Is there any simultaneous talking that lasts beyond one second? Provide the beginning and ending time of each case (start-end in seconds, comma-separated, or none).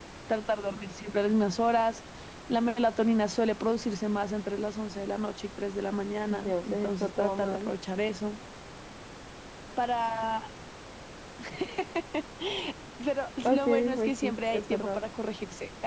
6.3-7.7, 13.4-15.0